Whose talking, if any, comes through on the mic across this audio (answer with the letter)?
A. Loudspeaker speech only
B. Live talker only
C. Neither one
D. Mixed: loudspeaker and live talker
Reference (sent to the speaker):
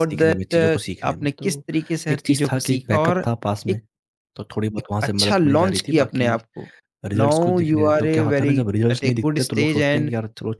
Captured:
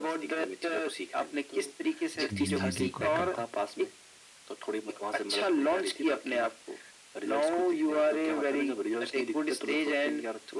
D